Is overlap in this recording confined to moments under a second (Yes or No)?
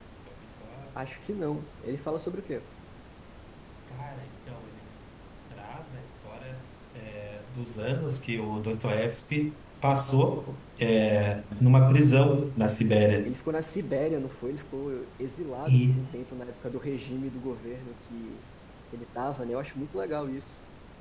Yes